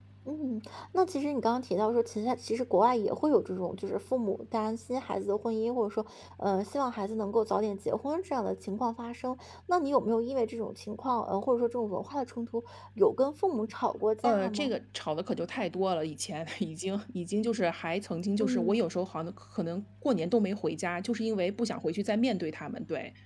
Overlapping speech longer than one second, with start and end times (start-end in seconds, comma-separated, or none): none